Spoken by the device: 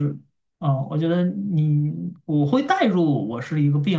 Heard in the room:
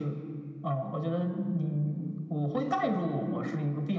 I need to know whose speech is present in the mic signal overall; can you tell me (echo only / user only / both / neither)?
echo only